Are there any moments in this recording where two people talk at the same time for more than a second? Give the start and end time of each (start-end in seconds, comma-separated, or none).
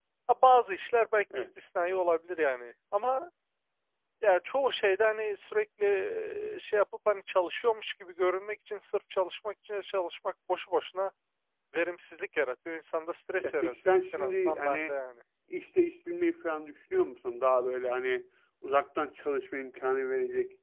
13.4-14.9